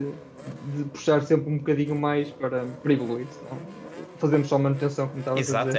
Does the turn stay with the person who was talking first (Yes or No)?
No